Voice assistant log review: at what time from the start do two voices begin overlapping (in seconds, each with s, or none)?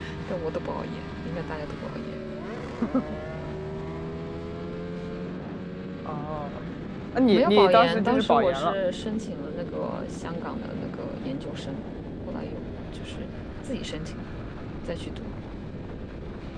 7.3 s